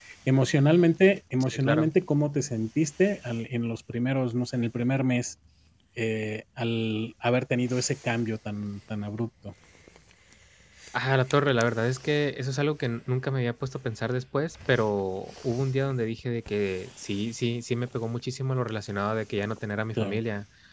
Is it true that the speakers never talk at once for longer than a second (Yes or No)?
Yes